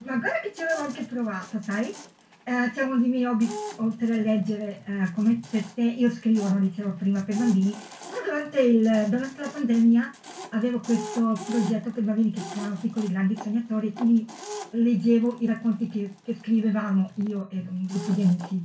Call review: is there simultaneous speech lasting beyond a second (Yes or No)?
No